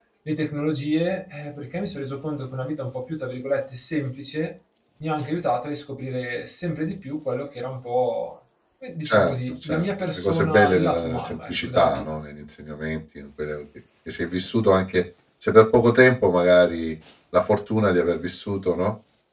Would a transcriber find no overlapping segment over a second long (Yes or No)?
No